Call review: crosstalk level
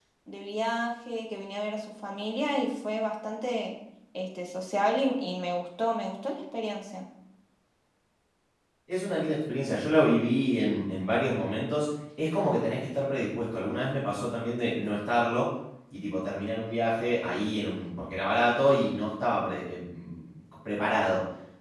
none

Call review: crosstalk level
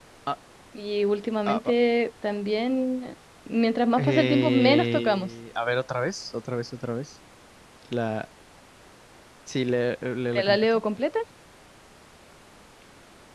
present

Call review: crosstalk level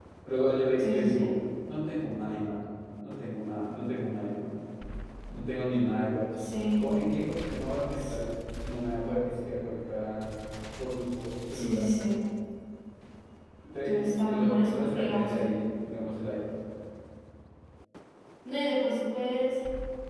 present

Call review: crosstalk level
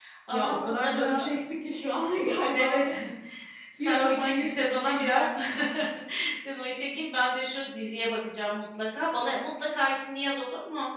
present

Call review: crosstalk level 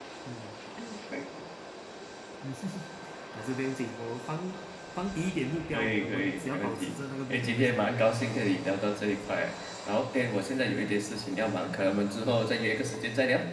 present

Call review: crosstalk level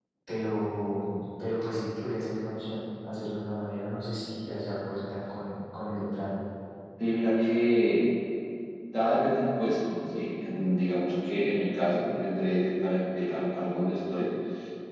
none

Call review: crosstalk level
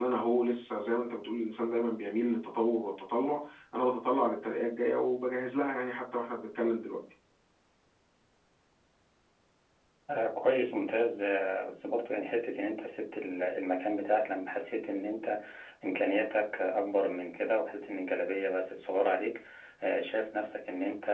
none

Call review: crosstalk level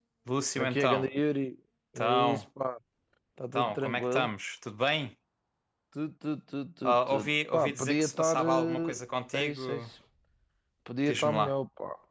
present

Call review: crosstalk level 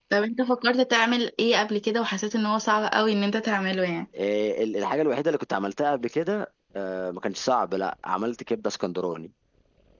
none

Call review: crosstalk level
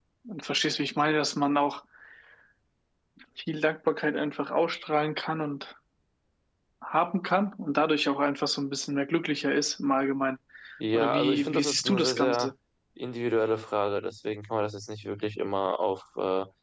present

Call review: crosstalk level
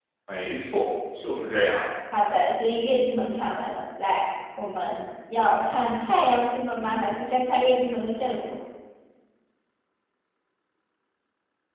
none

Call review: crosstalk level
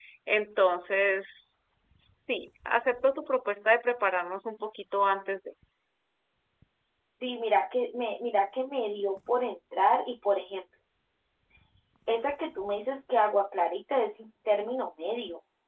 none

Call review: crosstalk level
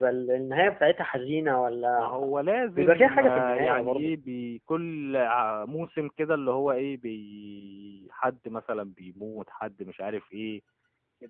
present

